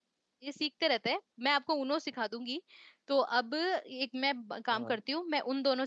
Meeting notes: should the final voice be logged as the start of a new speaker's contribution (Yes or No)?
No